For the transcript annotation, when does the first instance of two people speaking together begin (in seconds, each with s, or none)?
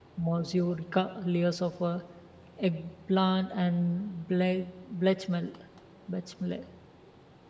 none